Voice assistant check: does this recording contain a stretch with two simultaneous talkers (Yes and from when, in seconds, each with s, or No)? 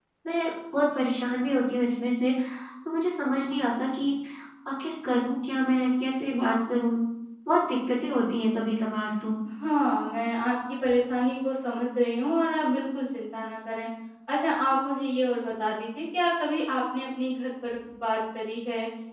No